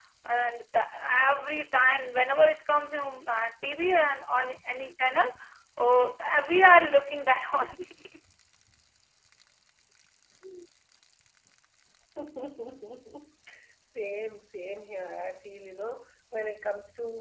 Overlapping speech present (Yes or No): No